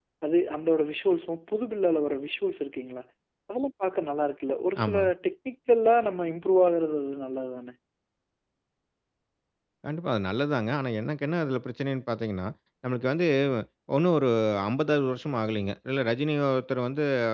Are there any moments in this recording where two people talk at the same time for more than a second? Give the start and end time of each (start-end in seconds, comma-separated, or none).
none